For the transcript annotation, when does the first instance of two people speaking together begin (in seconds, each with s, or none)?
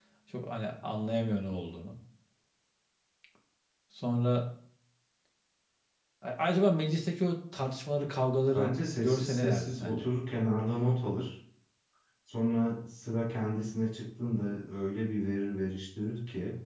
8.5 s